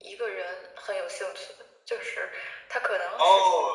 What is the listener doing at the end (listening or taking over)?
taking over